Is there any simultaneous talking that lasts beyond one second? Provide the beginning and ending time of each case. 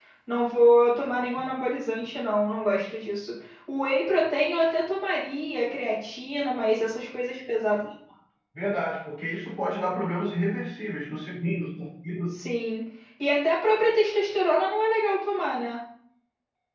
none

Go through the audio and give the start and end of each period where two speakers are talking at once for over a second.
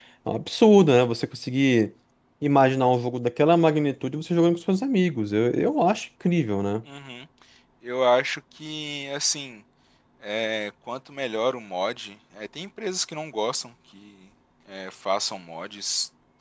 none

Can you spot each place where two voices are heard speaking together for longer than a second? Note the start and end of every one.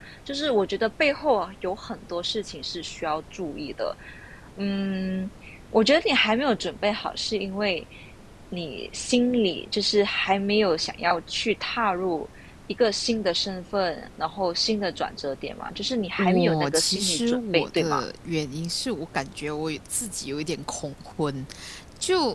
16.2-17.9

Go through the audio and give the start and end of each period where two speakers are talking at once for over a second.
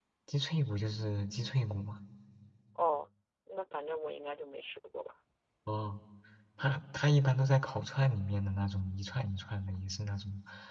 none

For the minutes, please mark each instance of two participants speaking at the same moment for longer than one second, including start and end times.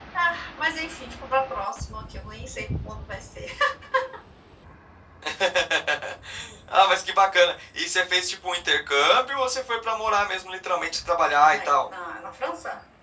none

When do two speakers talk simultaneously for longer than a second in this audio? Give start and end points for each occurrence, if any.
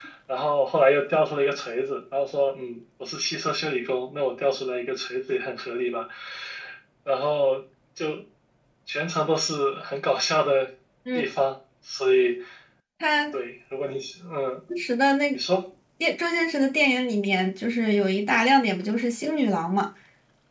none

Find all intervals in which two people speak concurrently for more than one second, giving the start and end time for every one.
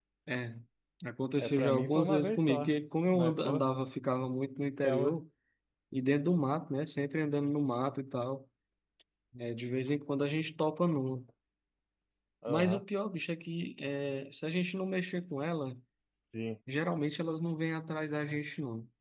1.4-2.7

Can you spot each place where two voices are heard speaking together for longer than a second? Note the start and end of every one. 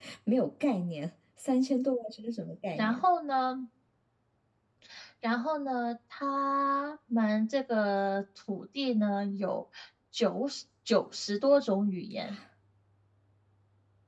none

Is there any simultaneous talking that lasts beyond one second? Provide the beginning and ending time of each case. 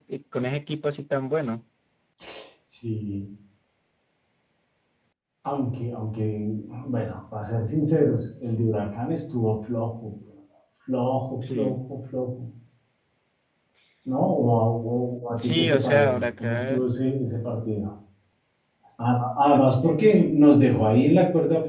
15.3-16.8

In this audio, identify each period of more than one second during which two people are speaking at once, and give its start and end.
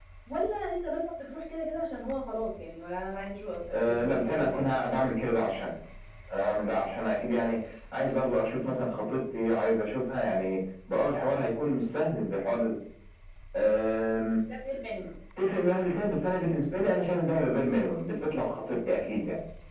3.7-5.0

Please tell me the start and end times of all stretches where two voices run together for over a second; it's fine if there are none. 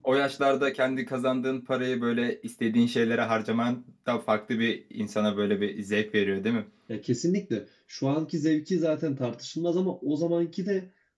none

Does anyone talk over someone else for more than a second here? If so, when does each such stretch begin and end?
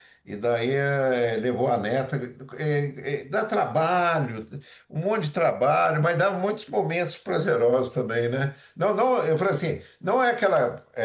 none

